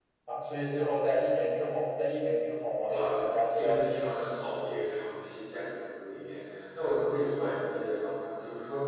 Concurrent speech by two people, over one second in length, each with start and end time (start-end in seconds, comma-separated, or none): 2.9-4.4